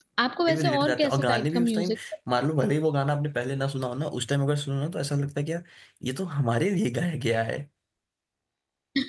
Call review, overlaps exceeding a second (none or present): present